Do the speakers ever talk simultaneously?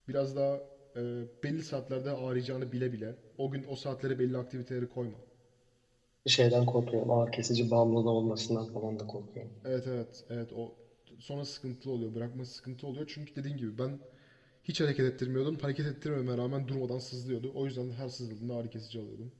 No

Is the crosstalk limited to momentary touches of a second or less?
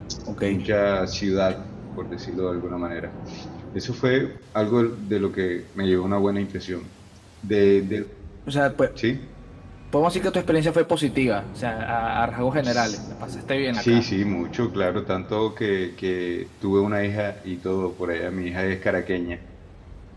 Yes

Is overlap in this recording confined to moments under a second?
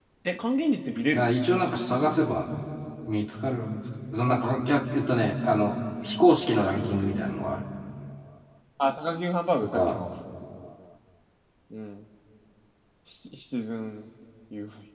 Yes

